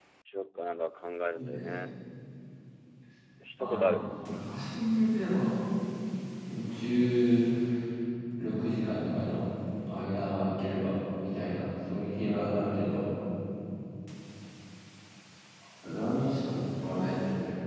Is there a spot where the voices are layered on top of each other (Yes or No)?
Yes